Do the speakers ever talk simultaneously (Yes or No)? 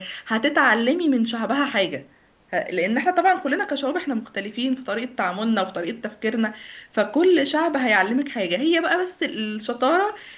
No